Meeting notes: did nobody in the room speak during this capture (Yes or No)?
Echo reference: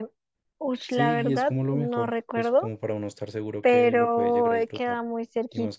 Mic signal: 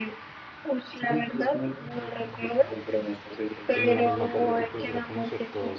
No